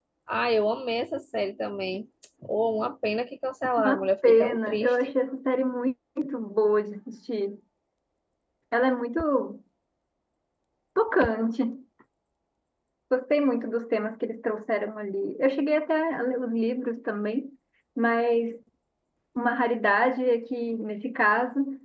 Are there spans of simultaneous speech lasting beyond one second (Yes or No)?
Yes